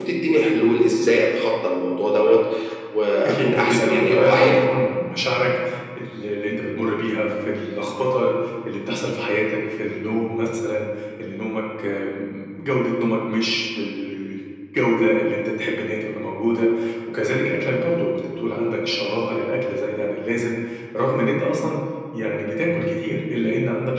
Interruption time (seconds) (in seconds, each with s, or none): 3.2 s